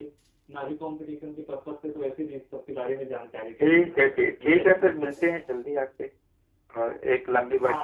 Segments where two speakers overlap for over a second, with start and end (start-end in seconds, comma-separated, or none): 3.6-5.2